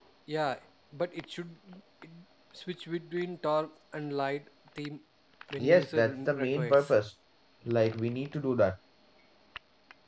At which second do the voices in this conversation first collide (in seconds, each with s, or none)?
5.6 s